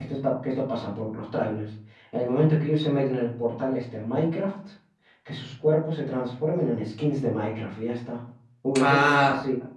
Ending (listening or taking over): taking over